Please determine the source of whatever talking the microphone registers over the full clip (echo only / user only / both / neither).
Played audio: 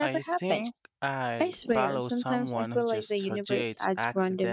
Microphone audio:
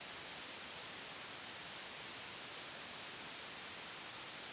neither